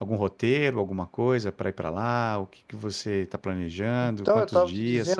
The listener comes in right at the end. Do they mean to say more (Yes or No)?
Yes